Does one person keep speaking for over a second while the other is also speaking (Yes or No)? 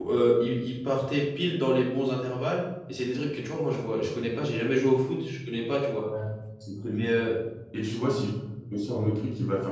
No